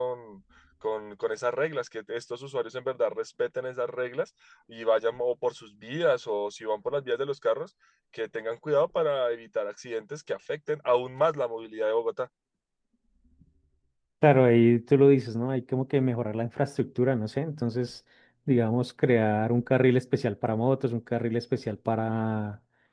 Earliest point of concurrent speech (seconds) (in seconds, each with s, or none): none